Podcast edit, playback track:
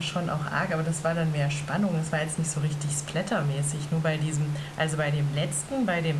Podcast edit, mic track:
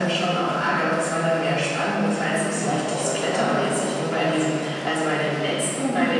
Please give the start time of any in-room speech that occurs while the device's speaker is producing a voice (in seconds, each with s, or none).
2.6 s